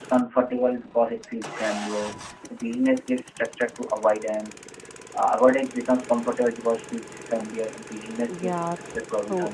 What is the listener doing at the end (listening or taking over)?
taking over